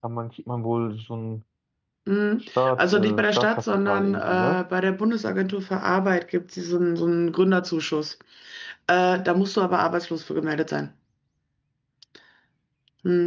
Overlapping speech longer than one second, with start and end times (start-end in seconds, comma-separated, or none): 2.6-4.6